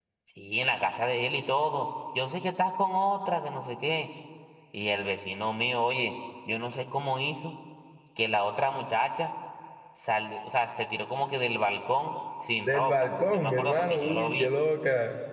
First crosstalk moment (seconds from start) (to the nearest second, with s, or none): 13 s